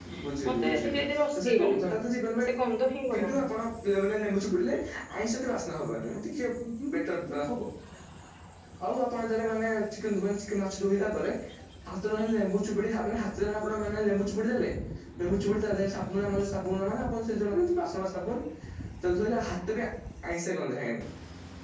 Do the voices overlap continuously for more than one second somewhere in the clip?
Yes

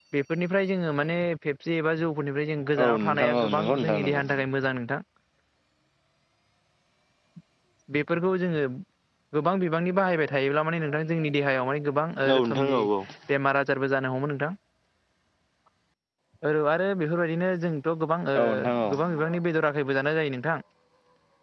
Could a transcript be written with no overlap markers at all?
No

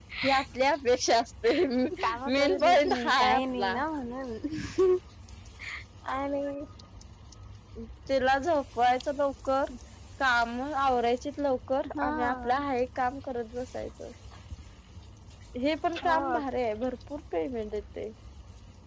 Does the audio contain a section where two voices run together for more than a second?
Yes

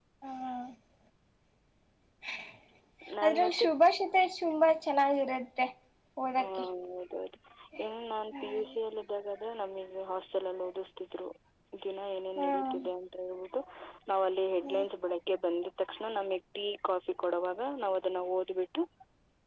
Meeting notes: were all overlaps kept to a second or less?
Yes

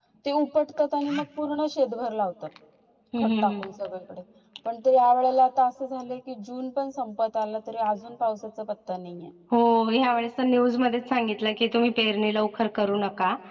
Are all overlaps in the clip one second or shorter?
Yes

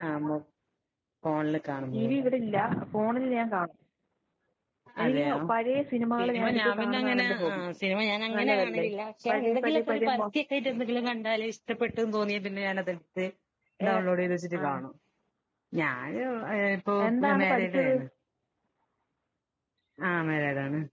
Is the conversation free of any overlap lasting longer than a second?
No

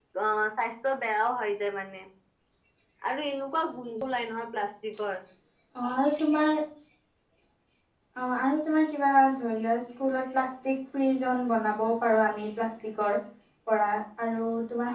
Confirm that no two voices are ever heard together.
Yes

